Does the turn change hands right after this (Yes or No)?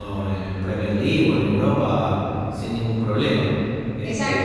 Yes